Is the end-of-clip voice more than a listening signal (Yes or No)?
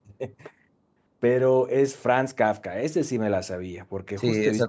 Yes